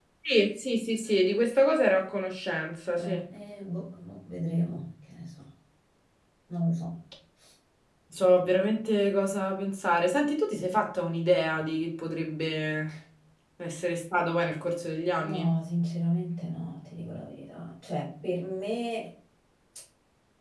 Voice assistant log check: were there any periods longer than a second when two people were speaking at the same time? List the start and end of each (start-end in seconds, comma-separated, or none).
none